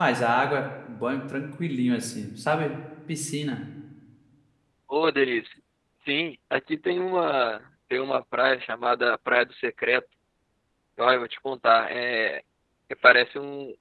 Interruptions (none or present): none